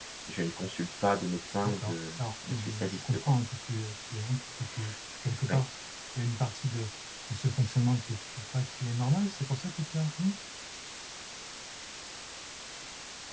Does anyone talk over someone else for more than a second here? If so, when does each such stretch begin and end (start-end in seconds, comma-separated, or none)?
1.6-3.3